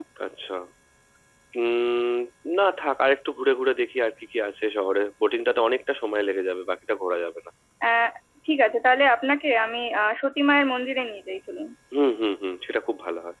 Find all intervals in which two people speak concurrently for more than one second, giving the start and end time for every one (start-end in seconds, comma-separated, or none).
none